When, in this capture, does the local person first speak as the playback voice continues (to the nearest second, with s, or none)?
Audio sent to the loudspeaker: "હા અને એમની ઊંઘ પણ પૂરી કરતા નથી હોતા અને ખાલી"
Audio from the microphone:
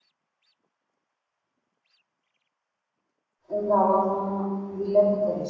4 s